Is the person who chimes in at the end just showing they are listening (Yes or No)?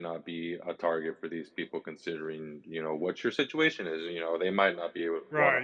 No